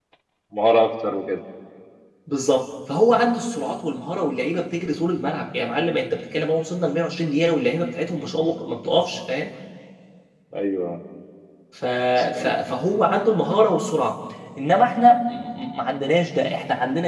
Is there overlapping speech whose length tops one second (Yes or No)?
No